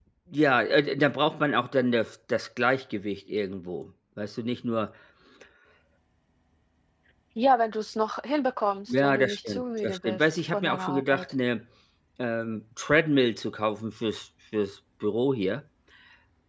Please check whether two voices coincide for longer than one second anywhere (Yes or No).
Yes